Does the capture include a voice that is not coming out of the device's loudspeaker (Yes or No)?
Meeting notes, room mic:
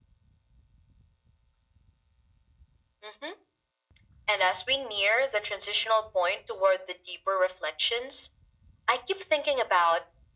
No